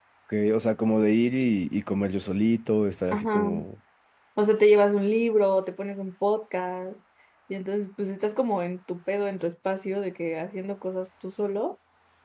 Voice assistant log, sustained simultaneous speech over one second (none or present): none